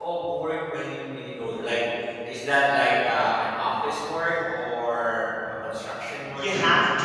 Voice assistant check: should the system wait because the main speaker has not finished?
No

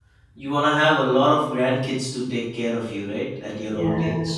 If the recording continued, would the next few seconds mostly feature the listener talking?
Yes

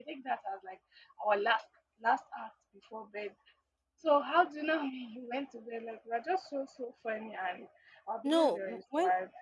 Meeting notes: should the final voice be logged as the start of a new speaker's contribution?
Yes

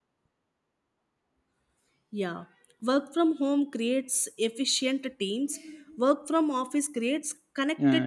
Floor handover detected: Yes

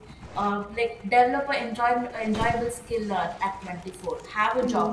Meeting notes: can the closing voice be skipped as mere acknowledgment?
Yes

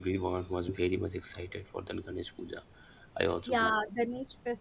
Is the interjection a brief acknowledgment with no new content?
No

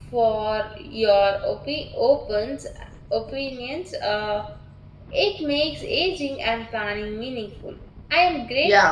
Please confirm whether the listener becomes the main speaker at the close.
Yes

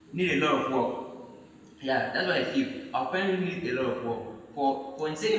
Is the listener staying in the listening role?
No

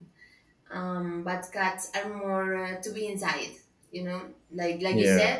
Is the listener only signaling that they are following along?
Yes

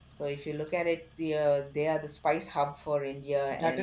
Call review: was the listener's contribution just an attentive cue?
No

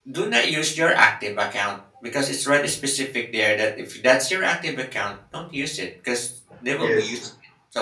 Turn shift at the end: No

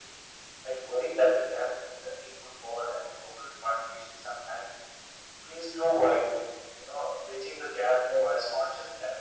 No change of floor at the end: Yes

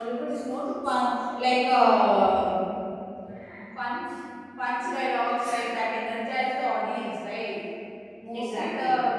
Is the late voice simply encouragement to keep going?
Yes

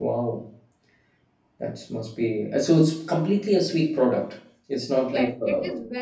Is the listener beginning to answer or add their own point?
Yes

